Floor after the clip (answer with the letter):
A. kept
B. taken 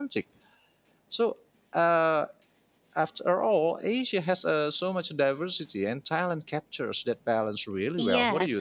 B